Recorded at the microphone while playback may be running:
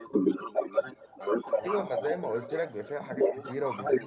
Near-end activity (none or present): present